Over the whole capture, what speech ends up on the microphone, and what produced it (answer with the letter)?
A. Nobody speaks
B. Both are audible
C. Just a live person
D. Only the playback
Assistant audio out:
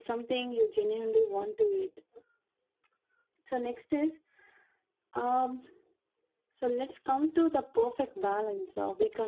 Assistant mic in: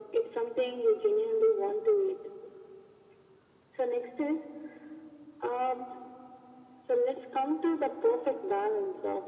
D